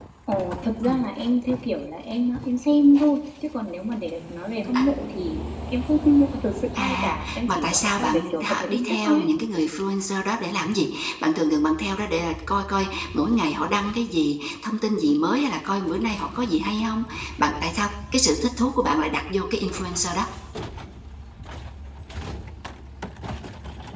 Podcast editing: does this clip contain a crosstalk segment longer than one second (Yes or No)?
Yes